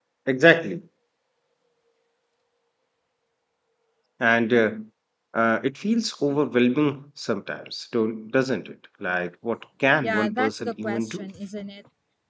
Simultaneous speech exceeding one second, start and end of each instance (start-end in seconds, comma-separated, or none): 10.0-11.3